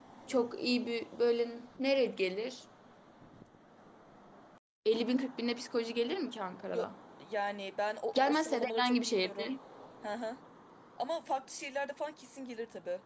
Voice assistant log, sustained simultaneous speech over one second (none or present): present